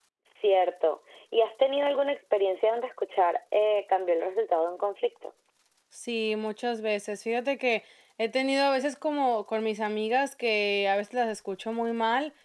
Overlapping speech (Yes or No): No